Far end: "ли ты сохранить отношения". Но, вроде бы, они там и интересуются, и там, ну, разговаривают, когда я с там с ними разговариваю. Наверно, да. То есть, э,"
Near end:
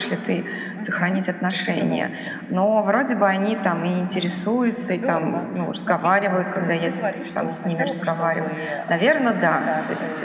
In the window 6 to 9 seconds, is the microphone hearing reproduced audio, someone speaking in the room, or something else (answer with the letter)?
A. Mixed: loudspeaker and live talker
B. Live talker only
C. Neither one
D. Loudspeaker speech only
A